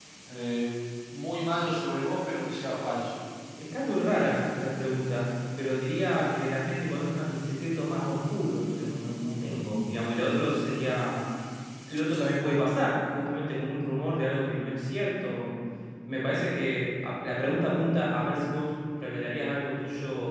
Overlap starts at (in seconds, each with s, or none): none